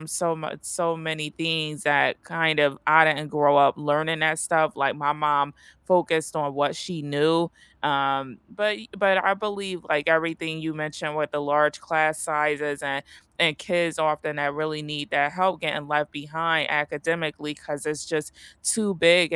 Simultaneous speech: No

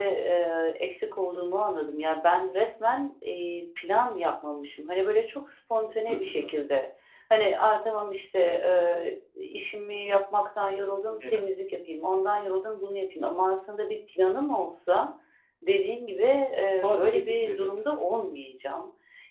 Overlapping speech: Yes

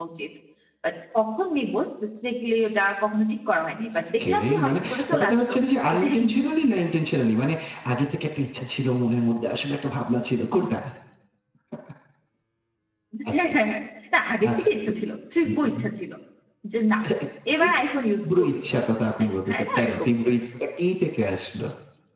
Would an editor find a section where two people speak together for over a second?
Yes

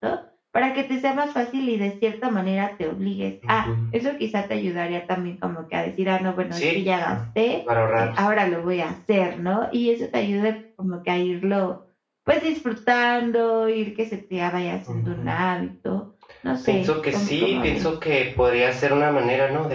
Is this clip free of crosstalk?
No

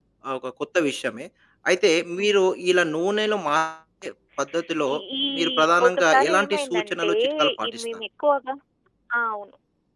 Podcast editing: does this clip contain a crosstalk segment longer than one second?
Yes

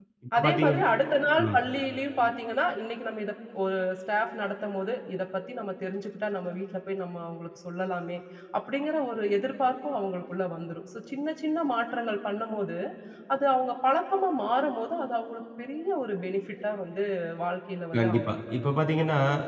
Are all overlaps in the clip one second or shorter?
Yes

